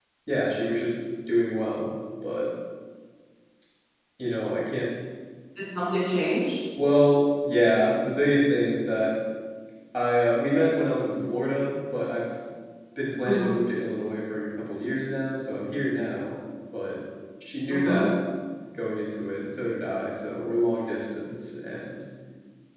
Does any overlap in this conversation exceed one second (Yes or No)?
No